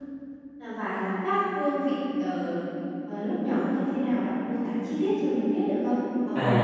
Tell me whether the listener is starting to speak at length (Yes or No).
Yes